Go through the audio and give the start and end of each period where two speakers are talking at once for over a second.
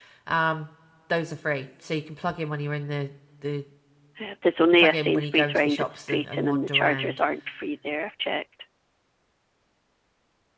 4.8-7.2

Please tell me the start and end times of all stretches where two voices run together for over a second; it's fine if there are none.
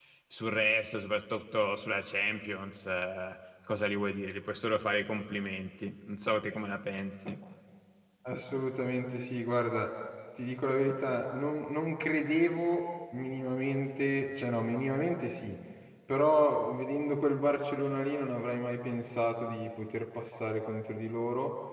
none

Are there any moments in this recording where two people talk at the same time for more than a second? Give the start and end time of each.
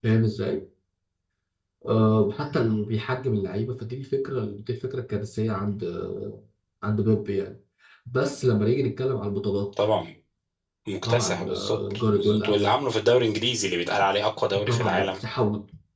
11.0-12.7

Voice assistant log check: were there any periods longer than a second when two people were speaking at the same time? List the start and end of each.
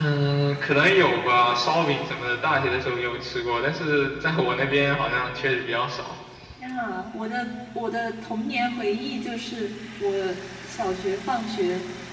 none

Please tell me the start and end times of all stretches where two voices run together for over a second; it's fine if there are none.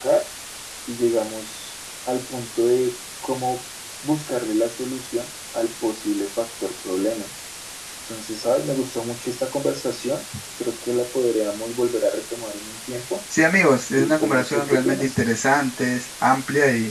13.9-15.2

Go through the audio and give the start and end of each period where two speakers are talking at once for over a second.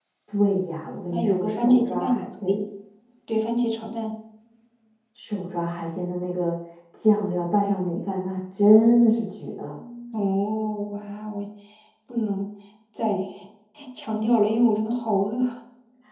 1.1-2.6

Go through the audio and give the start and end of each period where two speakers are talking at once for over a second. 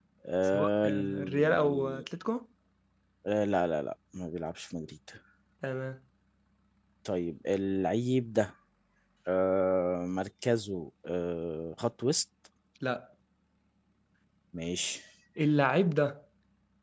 0.5-2.0

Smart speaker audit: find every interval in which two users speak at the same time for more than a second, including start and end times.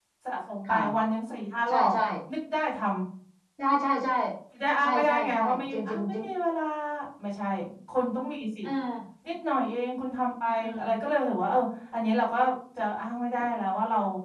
4.8-6.2

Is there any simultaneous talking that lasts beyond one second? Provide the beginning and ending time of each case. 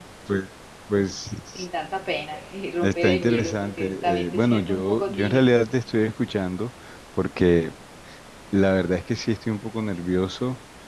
2.8-5.5

